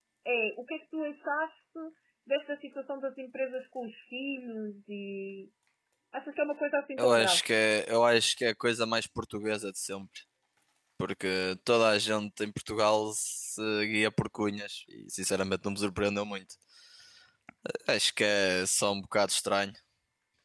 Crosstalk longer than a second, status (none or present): none